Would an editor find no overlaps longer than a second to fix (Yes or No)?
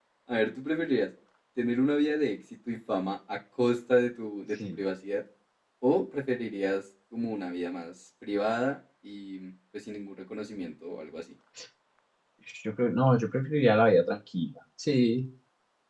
Yes